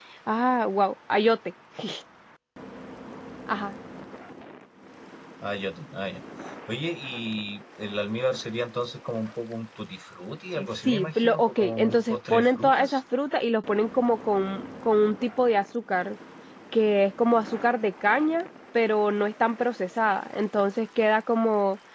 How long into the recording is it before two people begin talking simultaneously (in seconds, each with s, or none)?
10.8 s